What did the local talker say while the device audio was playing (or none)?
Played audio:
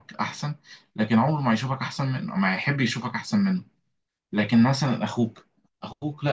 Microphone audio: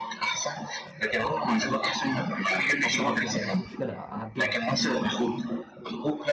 طب خلاص يعني مش مشكله اعديها